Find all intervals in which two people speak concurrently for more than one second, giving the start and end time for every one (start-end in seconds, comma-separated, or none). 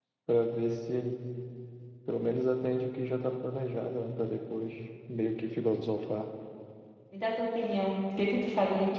none